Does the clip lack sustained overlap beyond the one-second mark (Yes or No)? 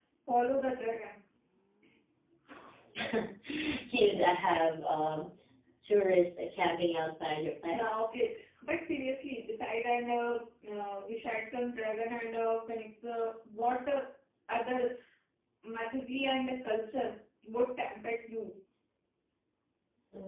Yes